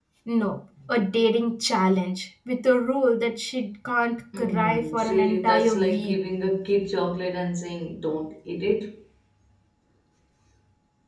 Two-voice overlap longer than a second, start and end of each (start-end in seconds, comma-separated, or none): 4.4-6.2